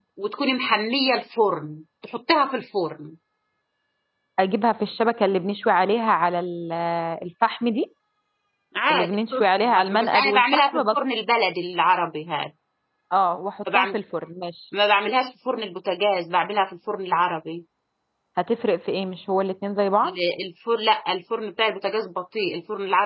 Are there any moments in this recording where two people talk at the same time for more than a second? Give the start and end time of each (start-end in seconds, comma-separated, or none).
8.9-11.0